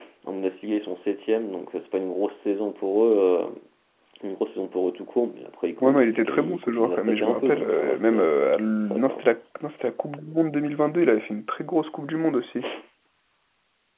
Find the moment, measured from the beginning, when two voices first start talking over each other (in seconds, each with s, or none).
5.8 s